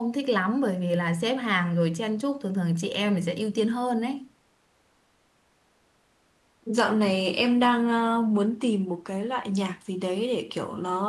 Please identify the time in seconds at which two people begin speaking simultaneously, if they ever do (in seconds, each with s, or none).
none